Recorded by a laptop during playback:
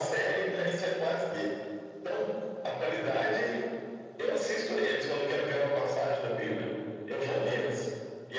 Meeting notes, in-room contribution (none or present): none